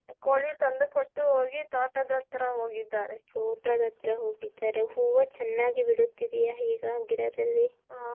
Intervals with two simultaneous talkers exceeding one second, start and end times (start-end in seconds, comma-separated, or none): none